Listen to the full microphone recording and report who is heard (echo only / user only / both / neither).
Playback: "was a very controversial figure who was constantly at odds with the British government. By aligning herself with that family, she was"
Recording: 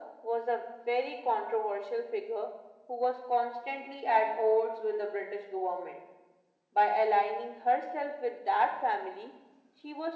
echo only